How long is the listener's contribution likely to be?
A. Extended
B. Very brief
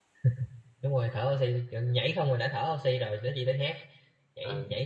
B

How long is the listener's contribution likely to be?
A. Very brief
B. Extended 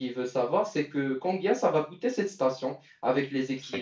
A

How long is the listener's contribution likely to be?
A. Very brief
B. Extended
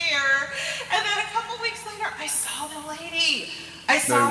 A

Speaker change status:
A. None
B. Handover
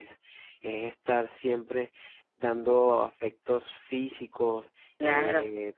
A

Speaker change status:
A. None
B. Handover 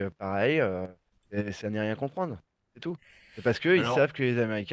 A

